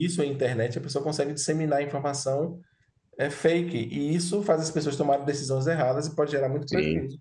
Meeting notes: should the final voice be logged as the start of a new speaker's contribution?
Yes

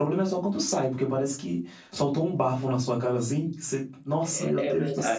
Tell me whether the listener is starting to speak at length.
Yes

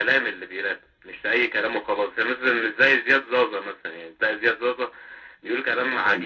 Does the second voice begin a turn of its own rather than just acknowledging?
No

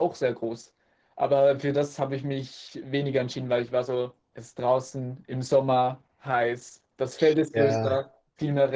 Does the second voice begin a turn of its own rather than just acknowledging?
No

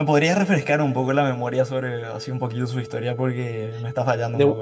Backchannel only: No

